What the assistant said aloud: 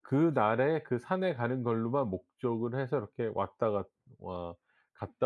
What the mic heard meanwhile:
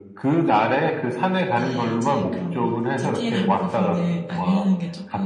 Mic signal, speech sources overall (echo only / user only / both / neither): both